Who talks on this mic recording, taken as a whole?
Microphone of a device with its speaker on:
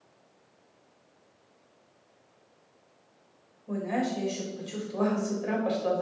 user only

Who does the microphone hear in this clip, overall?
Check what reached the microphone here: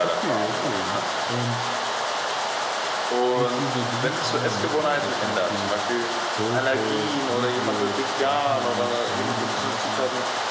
both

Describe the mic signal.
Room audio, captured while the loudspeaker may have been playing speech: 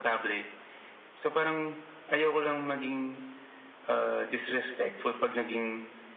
echo only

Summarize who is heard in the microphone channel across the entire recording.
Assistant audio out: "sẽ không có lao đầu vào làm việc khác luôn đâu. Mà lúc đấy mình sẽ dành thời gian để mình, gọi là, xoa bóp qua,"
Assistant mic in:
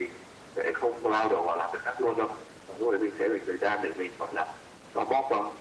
echo only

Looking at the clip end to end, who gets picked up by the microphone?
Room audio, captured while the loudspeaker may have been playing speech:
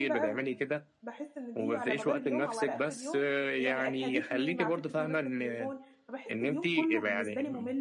both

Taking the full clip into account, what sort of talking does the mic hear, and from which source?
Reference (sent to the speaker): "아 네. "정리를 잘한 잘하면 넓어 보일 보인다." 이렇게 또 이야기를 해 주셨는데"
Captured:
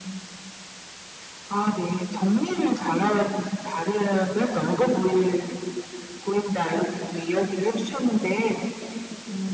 echo only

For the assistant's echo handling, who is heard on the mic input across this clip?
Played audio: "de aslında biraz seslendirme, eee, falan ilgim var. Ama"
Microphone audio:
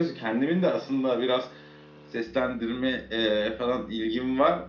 echo only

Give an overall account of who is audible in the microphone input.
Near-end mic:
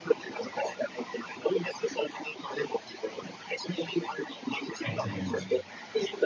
both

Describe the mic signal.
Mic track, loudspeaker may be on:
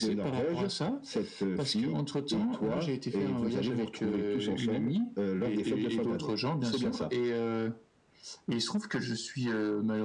echo only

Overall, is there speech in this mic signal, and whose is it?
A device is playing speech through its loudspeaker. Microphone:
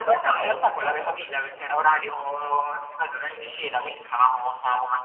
echo only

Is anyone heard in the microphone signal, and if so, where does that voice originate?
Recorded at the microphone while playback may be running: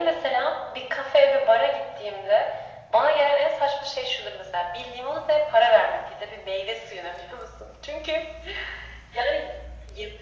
echo only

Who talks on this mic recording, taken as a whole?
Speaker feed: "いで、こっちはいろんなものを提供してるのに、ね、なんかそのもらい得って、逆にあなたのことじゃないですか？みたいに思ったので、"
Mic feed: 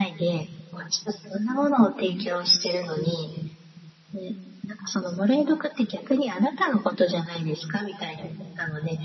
echo only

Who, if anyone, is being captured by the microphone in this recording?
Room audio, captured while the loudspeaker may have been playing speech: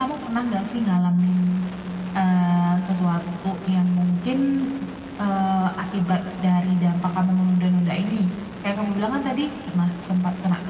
echo only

